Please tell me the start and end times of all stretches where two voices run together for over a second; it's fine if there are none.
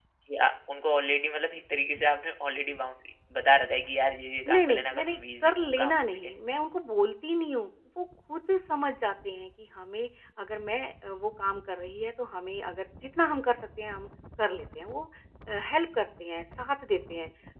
4.5-6.3

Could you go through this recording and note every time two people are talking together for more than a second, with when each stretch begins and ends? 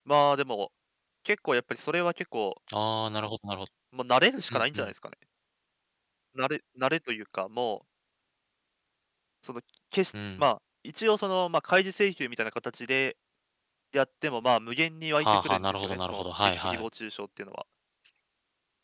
15.2-16.8

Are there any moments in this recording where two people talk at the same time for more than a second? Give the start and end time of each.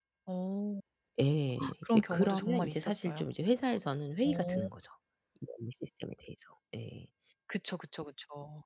1.8-3.2

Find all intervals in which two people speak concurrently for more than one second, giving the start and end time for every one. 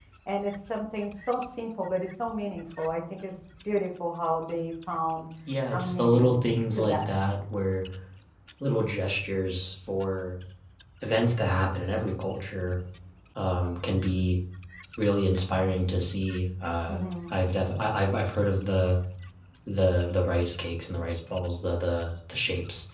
5.7-7.1

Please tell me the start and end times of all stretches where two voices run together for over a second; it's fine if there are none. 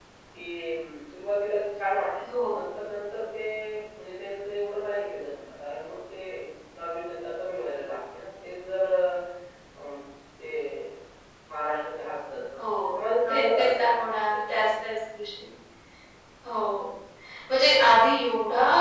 none

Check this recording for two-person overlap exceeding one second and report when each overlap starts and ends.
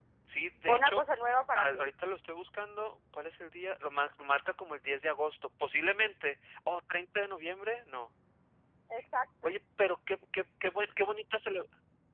none

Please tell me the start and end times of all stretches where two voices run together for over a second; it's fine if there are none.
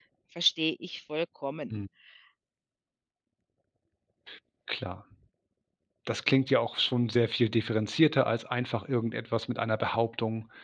none

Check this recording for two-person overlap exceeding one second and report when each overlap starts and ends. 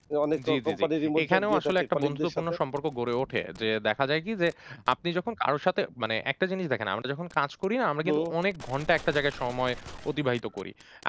1.2-2.4

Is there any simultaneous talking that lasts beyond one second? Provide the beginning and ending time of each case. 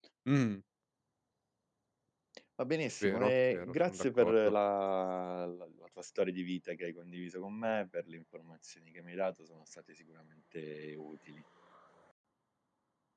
3.0-4.3

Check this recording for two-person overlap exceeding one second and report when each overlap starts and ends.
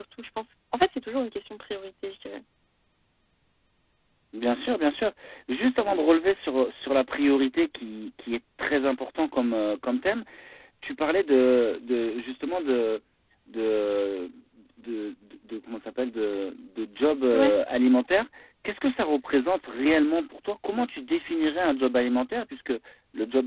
none

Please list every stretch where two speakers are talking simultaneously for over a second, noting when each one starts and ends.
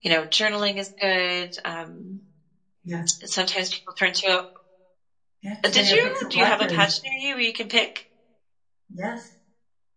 5.6-7.0

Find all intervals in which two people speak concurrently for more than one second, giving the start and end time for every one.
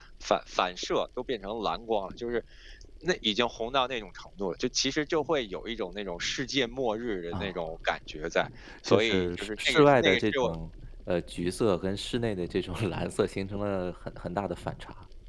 8.9-10.5

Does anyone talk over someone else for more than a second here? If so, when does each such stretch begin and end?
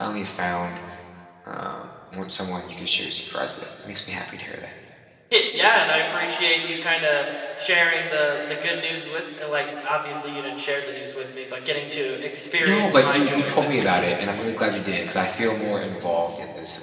12.6-13.8

